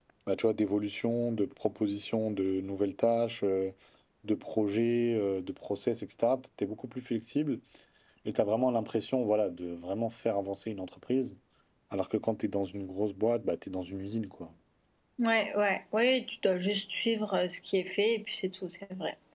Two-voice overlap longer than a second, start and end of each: none

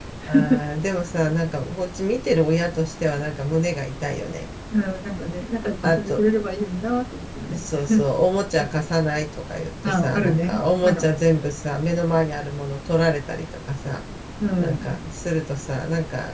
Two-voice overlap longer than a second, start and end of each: 9.9-11.1

